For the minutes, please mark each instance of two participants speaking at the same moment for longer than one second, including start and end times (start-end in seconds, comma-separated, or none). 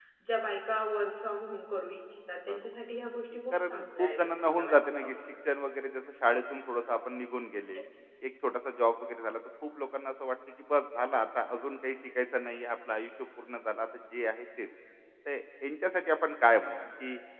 3.5-5.1